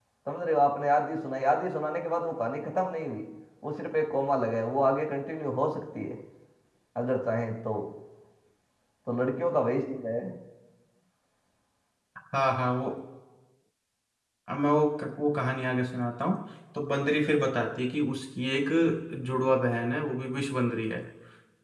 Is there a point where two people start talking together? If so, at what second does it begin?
none

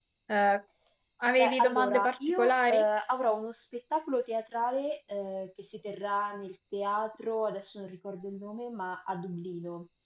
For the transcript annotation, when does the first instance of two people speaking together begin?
1 s

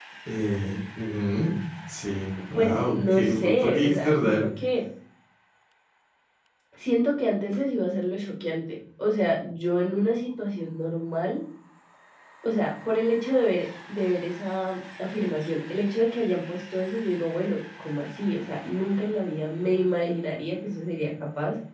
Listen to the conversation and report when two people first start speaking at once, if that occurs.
2 s

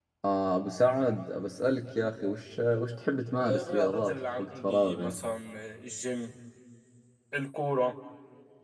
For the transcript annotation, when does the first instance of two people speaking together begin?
3 s

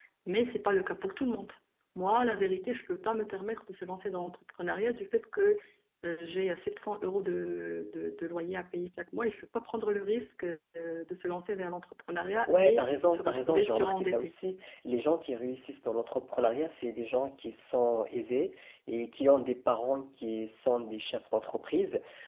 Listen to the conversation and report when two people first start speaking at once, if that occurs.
12 s

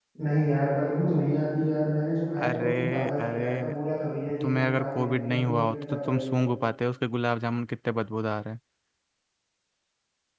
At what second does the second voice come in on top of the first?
2 s

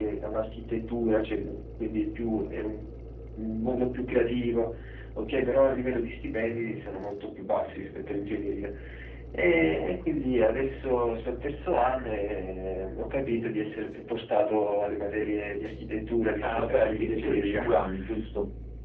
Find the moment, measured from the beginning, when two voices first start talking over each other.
16 s

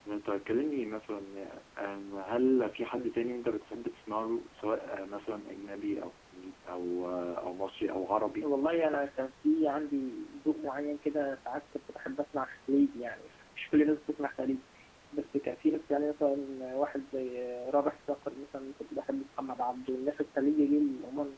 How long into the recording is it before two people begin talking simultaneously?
none

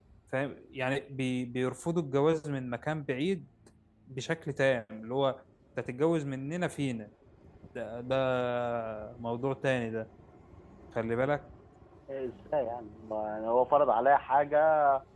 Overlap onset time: none

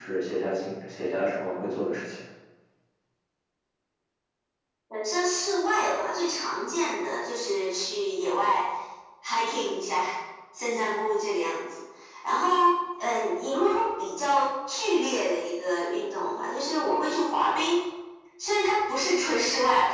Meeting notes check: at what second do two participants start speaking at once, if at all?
none

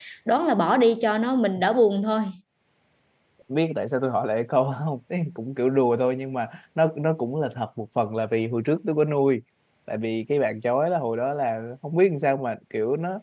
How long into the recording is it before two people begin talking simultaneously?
none

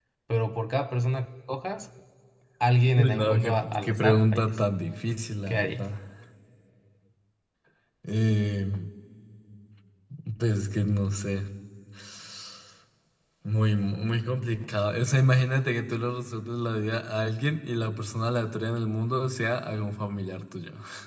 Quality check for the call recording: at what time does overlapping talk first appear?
3 s

